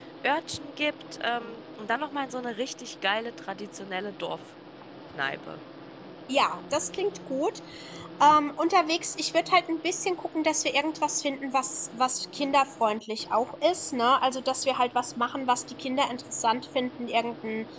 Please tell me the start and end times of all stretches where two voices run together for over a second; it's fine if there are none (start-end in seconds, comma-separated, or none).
none